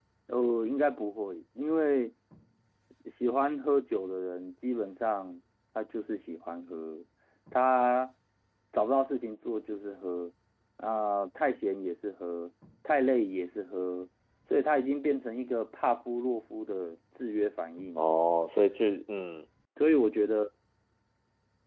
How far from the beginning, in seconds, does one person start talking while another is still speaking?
none

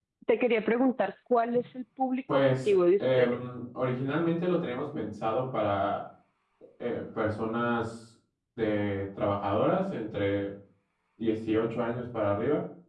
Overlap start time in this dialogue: 2.3 s

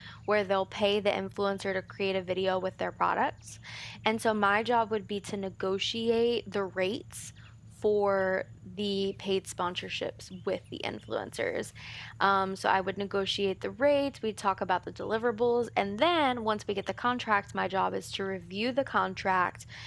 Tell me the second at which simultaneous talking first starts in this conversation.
none

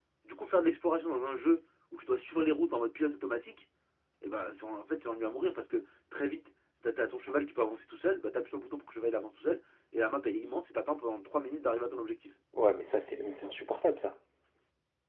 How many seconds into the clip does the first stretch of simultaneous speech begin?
none

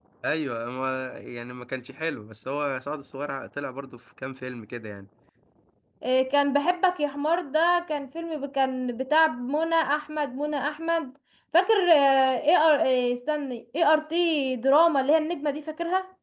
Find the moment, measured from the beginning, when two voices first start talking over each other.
none

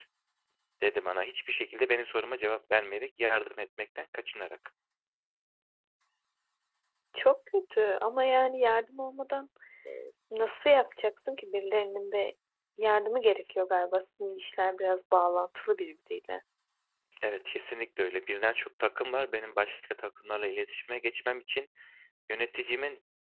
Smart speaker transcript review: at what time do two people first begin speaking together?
none

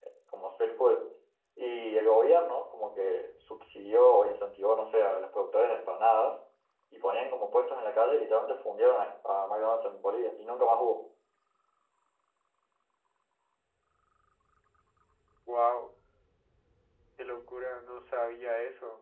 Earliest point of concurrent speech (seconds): none

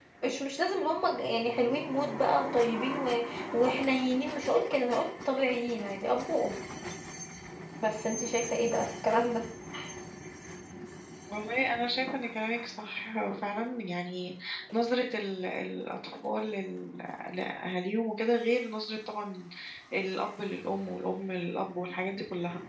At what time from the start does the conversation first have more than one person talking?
none

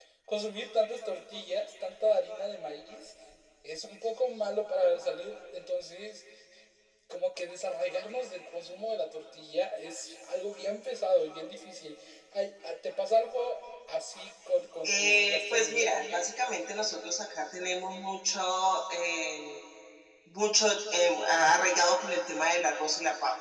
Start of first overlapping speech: 14.8 s

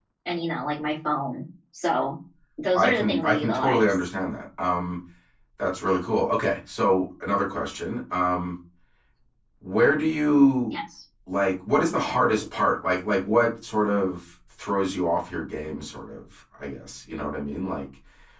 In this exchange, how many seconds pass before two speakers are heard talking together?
2.8 s

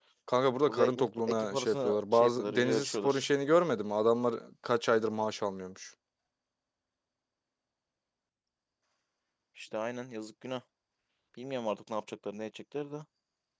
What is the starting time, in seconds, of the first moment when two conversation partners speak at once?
0.7 s

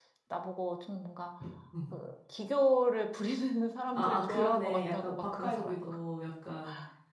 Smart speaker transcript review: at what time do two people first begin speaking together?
3.9 s

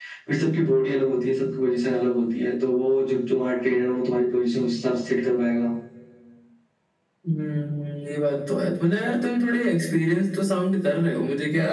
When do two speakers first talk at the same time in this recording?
none

